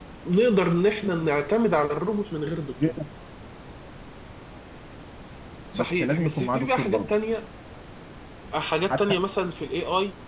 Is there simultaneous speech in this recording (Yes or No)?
Yes